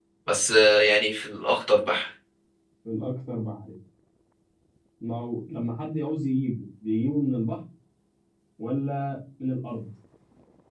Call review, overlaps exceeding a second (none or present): none